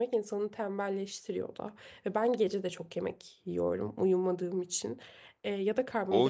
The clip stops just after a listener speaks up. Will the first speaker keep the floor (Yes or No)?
No